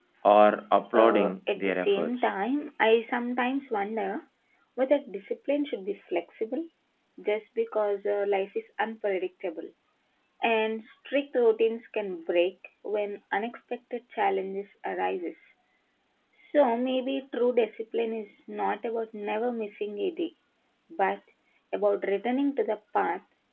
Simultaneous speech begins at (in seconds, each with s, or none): 0.9 s